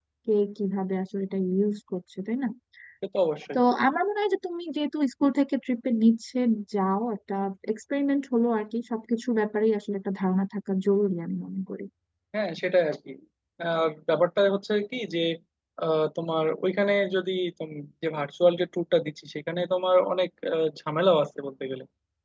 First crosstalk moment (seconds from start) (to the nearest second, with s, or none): none